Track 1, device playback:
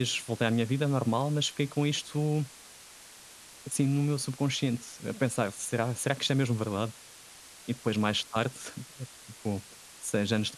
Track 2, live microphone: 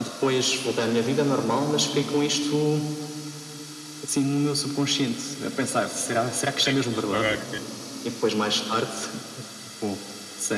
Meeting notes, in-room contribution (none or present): present